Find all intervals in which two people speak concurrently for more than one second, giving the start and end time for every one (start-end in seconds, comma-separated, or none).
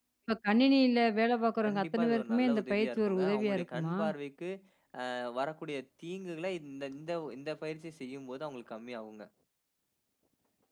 1.6-4.0